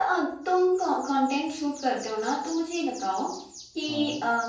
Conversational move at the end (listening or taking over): listening